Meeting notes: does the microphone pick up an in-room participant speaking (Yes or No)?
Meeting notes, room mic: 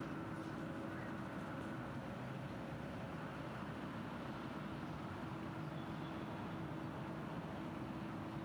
No